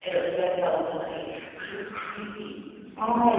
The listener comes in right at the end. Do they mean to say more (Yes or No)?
Yes